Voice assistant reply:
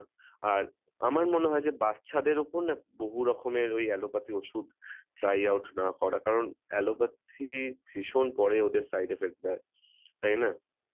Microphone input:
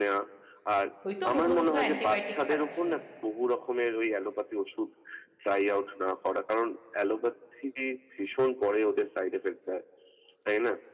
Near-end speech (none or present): present